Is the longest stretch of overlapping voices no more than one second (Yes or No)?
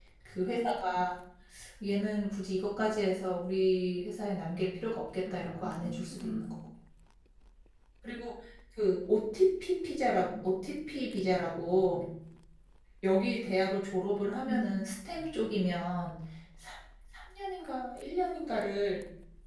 No